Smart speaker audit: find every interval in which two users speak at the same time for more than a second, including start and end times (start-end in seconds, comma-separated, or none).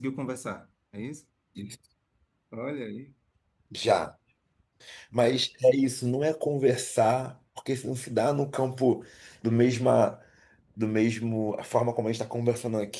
none